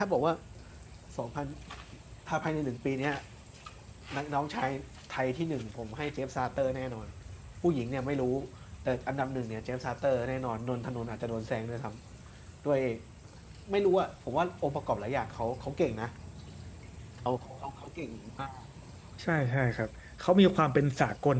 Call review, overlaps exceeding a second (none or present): none